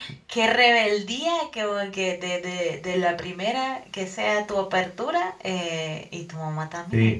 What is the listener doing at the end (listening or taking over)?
taking over